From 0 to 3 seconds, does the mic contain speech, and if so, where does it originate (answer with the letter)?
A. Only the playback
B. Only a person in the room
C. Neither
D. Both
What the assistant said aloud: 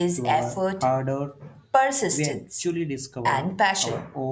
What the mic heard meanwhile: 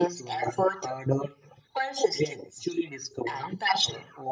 A